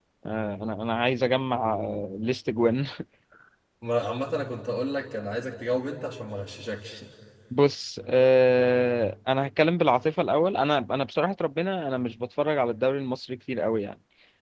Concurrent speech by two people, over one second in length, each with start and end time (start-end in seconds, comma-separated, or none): none